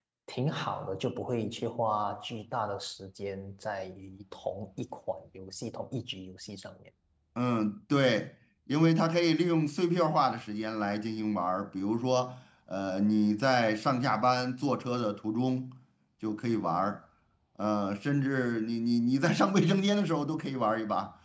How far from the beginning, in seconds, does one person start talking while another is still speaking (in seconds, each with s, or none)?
none